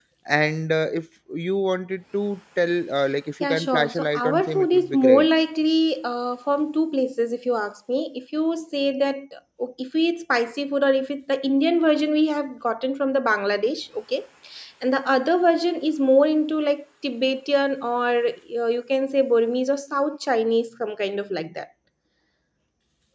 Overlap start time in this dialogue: 3.4 s

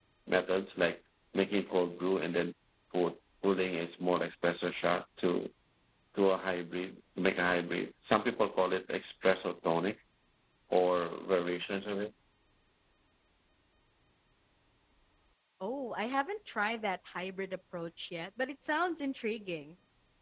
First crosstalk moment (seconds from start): none

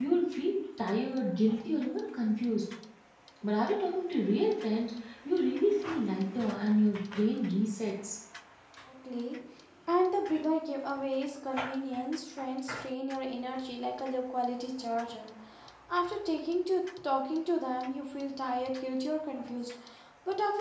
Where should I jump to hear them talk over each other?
none

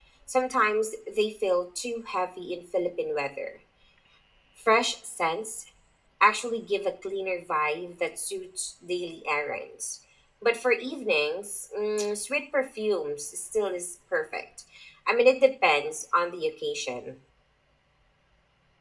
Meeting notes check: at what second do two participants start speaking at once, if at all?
none

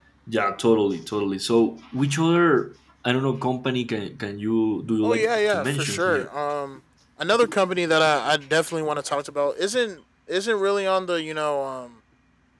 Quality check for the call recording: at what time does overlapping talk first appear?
5.0 s

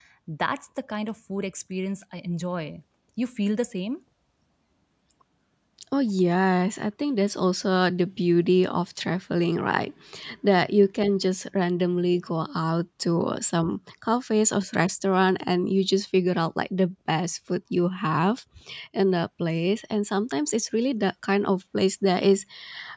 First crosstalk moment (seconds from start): none

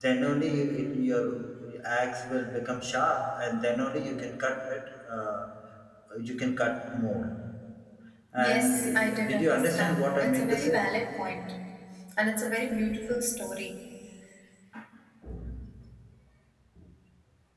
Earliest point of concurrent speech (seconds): 8.4 s

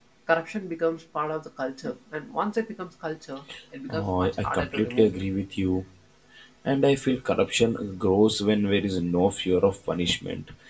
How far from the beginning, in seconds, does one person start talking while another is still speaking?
3.9 s

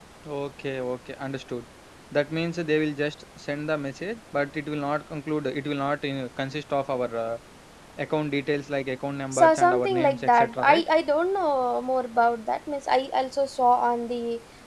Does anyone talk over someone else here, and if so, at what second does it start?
9.3 s

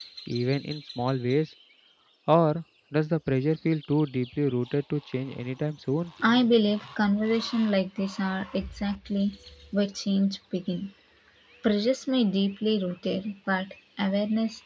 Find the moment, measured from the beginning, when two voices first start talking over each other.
none

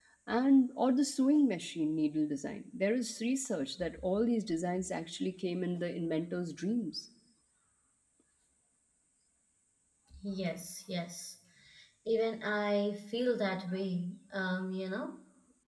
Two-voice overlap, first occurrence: none

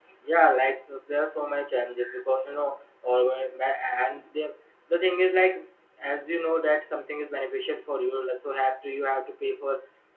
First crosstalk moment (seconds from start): none

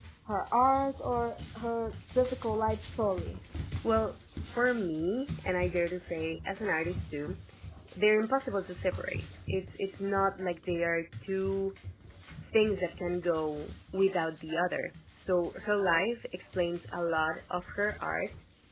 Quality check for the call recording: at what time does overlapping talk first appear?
none

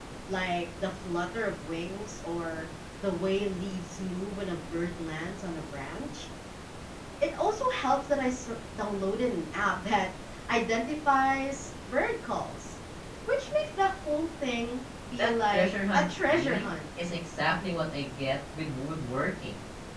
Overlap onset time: 15.2 s

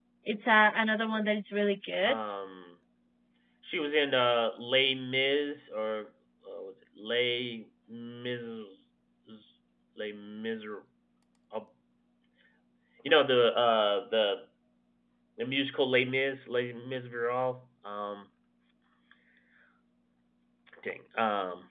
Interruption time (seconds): none

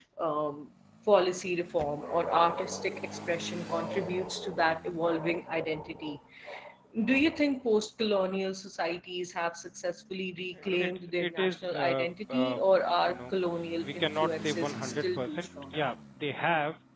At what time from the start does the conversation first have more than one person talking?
10.4 s

